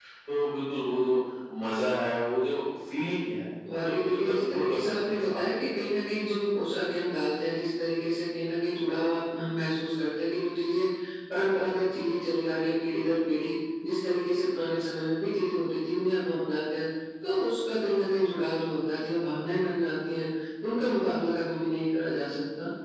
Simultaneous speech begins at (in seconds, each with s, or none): 3.6 s